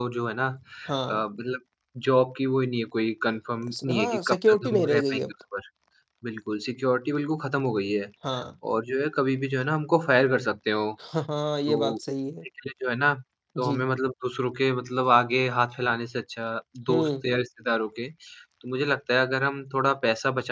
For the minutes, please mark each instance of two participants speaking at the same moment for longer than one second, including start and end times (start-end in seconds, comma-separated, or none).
3.8-5.3